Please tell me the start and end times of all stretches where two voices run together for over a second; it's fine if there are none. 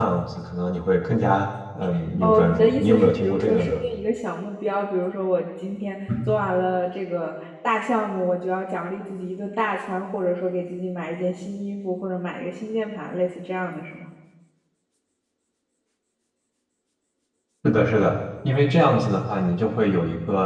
2.2-3.8

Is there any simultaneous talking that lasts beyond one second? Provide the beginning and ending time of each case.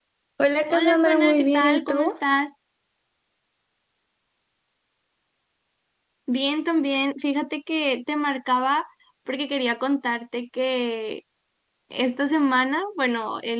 0.7-2.1

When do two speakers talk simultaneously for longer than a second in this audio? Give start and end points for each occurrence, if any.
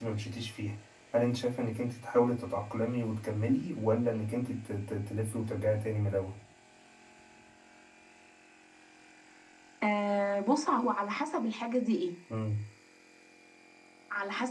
none

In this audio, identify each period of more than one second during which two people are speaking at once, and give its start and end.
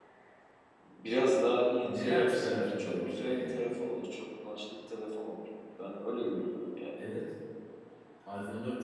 1.8-3.6

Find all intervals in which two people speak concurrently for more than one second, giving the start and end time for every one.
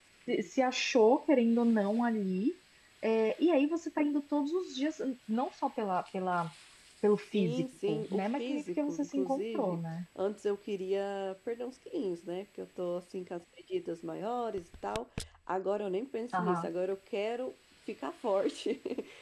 7.3-9.8

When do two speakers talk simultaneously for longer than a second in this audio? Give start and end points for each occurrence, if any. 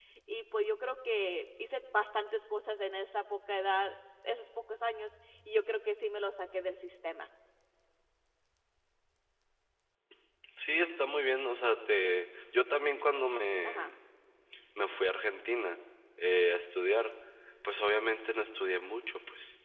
none

